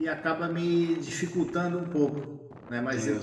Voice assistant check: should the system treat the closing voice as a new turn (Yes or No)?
No